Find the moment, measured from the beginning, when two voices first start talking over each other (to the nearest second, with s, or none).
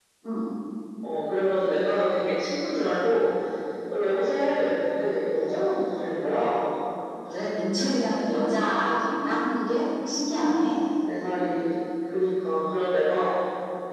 none